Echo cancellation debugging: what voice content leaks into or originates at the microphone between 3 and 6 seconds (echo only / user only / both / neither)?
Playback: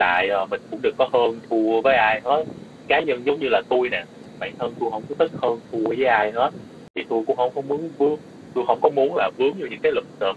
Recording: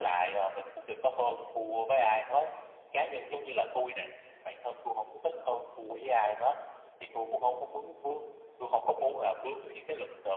echo only